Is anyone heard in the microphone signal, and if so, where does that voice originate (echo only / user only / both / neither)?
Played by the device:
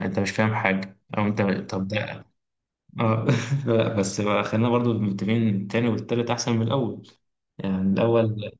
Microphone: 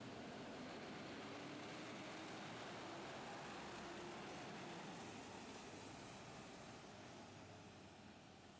neither